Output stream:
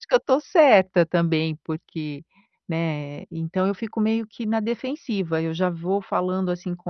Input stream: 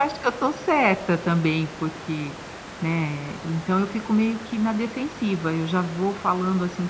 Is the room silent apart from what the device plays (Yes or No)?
Yes